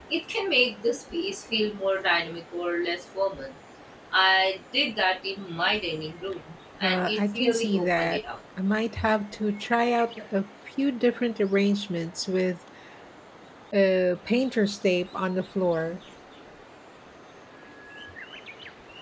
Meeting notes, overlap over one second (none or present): present